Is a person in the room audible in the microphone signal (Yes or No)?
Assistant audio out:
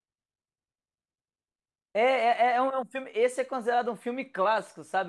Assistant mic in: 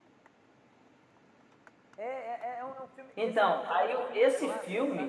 Yes